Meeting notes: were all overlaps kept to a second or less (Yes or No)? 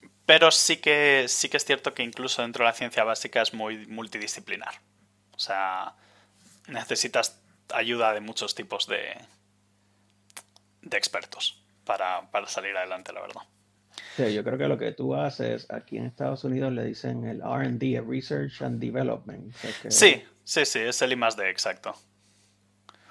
Yes